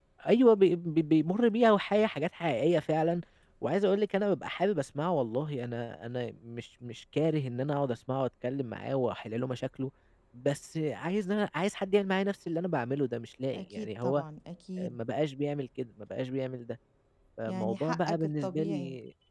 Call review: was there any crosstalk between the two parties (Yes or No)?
Yes